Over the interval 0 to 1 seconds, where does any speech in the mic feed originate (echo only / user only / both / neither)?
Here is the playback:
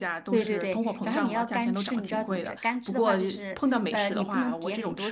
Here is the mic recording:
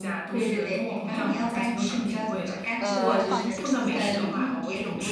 echo only